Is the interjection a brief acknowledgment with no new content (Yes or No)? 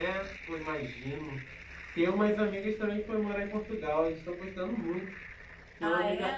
Yes